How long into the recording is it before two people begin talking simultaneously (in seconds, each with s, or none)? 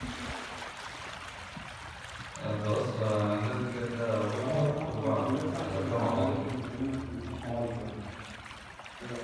4.4 s